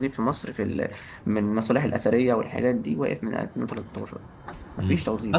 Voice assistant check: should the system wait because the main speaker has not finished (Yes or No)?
No